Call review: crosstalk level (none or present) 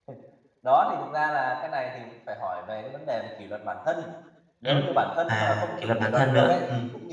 present